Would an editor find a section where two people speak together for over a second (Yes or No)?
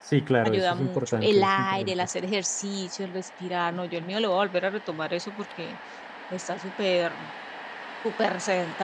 Yes